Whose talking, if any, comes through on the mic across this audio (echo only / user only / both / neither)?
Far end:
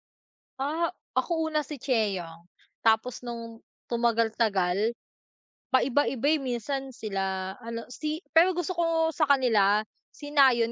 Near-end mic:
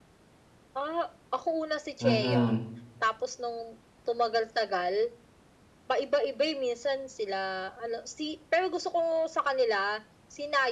both